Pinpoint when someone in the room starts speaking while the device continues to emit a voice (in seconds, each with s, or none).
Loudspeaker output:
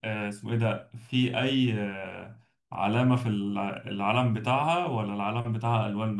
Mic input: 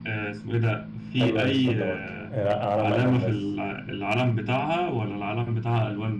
1.2 s